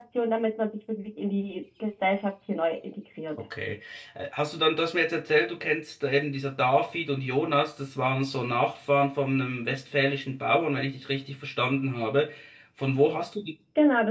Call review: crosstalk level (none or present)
none